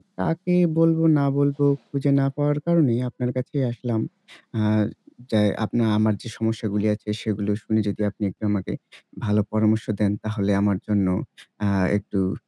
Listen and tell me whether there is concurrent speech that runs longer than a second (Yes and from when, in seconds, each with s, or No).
No